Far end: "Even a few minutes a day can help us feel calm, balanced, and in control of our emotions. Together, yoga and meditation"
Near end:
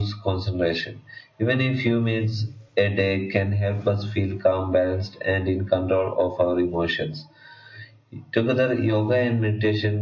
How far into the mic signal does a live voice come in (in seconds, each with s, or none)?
none